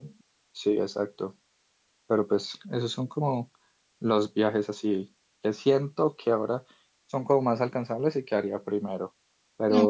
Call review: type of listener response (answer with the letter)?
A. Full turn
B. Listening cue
B